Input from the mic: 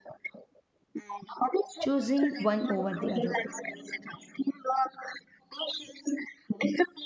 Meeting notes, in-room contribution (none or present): present